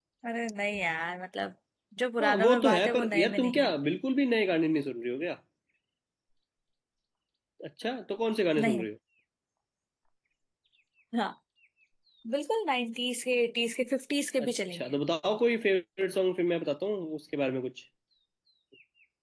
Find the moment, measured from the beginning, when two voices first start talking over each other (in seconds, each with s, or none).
2.2 s